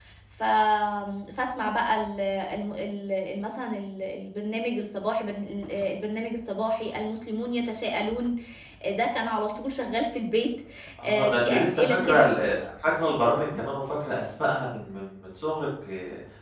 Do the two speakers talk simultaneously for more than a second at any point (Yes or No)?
Yes